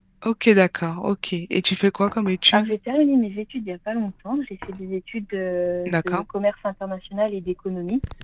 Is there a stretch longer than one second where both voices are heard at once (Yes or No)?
No